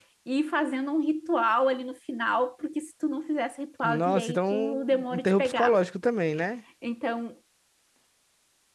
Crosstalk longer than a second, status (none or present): present